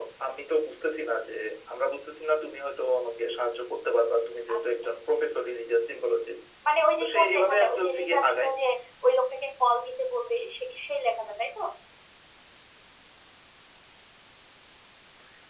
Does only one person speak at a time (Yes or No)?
No